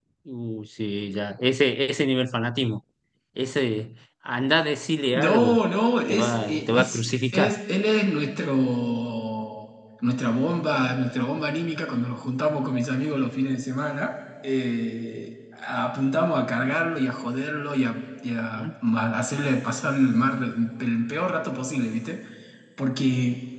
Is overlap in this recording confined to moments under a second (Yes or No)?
No